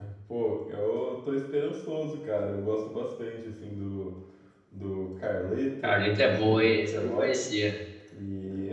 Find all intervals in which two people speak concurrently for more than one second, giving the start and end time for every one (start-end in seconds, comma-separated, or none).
5.8-7.3